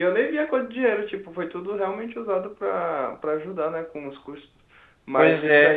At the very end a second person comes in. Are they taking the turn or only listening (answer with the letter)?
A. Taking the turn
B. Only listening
B